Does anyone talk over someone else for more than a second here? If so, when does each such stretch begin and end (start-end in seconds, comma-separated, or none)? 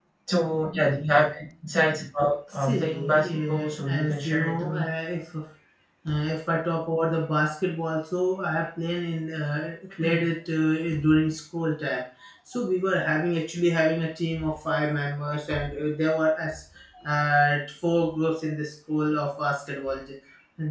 2.5-4.9